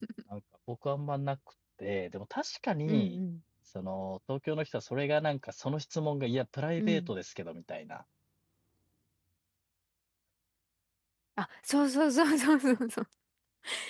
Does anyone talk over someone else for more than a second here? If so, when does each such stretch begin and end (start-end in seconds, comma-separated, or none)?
none